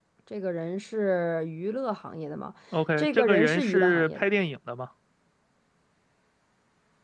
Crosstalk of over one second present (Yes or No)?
Yes